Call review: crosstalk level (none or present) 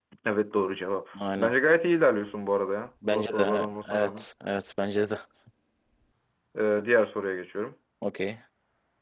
present